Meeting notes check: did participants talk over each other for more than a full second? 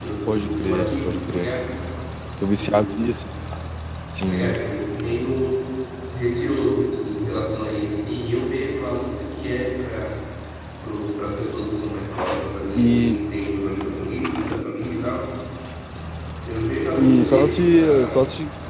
Yes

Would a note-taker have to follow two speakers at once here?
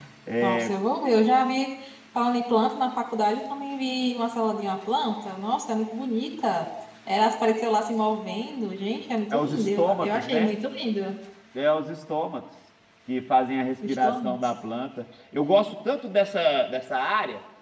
Yes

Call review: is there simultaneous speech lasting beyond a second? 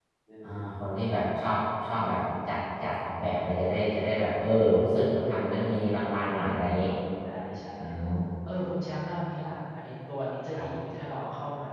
No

